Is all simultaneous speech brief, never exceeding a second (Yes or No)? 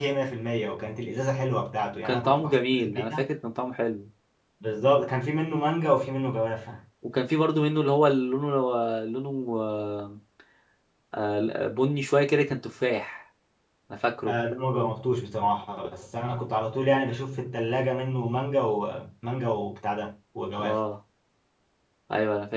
No